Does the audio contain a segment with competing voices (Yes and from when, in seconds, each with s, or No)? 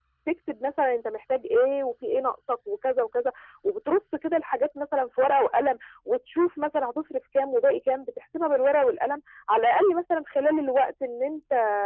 No